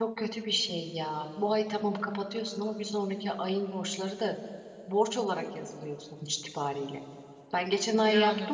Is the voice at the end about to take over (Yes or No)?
No